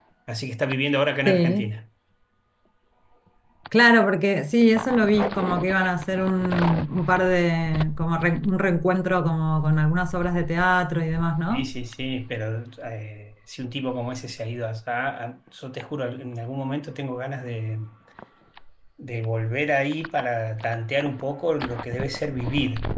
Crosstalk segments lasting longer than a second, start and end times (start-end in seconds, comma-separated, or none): none